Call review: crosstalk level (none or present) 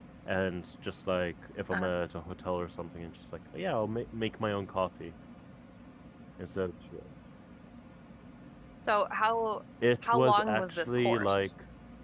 present